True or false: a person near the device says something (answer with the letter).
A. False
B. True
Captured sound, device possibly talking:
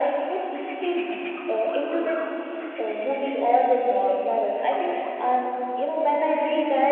A